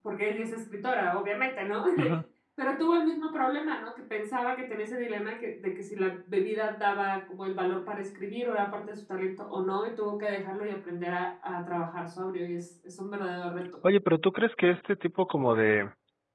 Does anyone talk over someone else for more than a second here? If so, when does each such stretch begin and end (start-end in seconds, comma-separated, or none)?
none